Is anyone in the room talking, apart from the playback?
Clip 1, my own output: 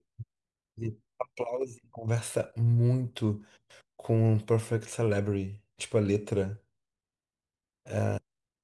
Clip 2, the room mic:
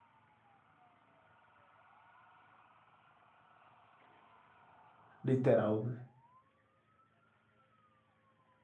Yes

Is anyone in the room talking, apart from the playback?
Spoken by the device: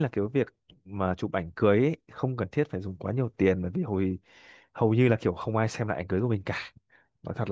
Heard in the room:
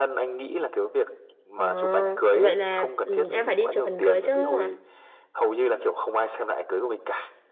Yes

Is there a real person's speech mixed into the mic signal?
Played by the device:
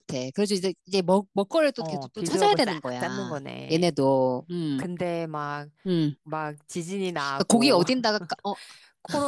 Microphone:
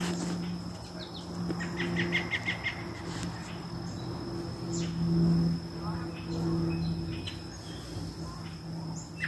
No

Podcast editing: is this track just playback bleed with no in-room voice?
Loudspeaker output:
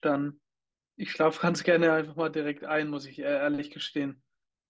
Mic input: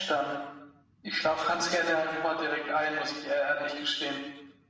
Yes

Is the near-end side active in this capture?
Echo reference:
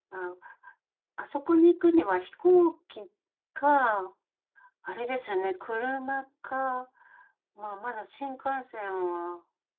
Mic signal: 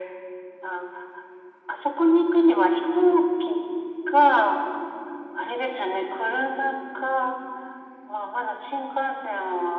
No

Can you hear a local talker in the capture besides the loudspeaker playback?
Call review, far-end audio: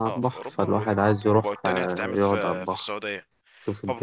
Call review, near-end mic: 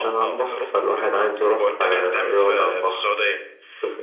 No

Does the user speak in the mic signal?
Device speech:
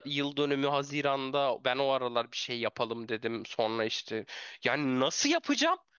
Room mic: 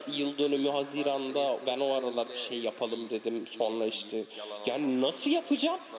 Yes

